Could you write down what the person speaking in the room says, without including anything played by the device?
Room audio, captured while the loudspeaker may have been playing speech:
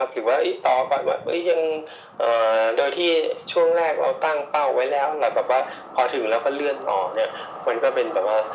none

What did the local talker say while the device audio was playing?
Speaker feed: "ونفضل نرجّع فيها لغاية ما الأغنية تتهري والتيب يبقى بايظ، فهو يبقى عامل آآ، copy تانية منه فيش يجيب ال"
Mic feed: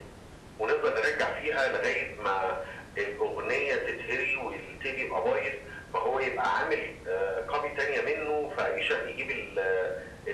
none

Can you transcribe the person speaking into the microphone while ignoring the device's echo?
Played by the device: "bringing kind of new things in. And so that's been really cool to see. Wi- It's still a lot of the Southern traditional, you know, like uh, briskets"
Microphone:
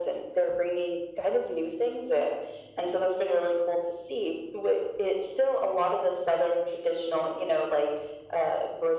none

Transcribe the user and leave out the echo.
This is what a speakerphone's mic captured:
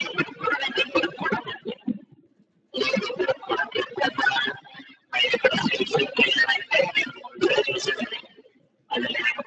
none

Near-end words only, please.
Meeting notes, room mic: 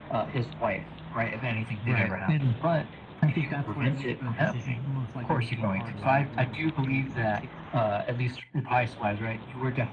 right. And I think that's where it, ma- the decision most likely became harder, right? Where it was like, "Hey, do I take the hit

